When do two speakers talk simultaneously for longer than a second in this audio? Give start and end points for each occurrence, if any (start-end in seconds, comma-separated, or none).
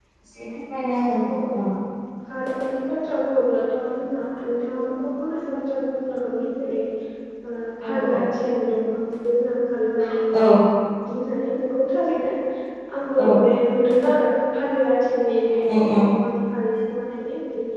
none